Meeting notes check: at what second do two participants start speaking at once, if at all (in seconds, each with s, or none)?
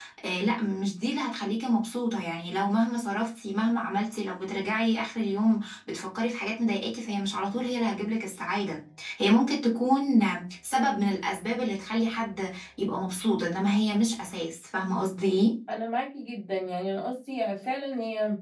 none